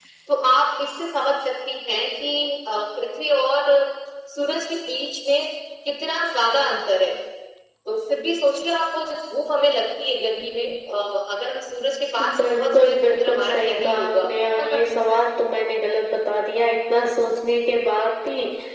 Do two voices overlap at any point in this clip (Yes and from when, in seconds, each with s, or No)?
Yes, from 12.2 s